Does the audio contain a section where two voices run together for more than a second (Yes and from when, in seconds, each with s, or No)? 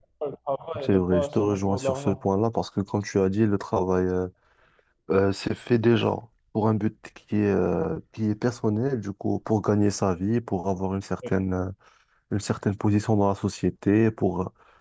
Yes, from 0.8 s